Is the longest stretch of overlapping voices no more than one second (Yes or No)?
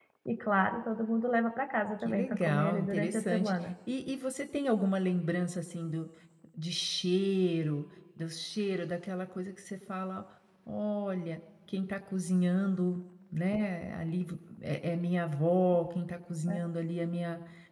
No